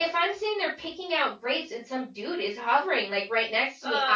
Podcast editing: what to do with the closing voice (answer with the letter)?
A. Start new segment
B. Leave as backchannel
B